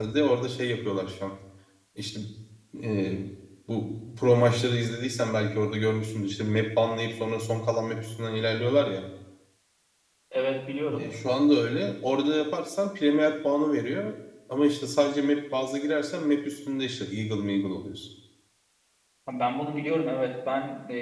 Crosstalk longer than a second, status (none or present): none